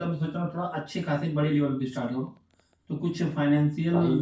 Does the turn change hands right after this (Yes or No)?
No